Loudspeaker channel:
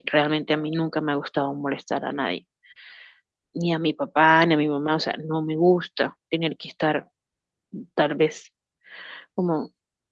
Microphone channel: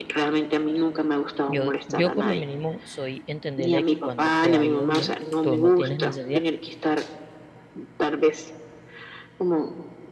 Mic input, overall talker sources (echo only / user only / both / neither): both